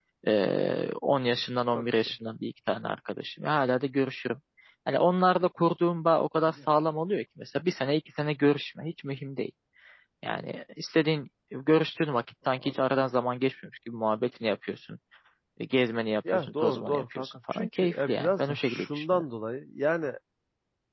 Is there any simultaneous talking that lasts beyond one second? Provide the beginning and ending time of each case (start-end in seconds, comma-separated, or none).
16.3-19.2